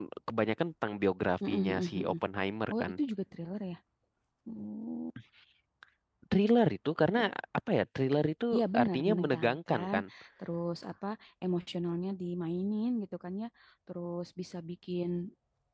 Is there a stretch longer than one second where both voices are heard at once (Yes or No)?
Yes